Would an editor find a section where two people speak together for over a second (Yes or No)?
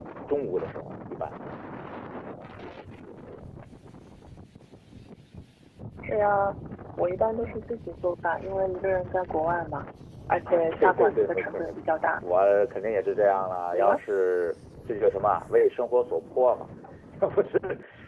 Yes